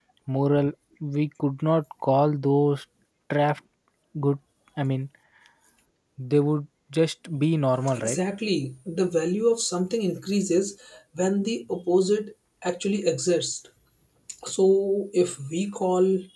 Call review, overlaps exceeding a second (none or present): none